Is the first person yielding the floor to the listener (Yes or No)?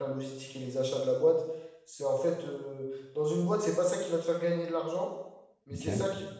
No